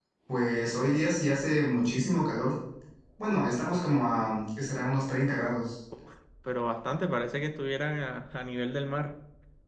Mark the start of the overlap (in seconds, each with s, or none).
none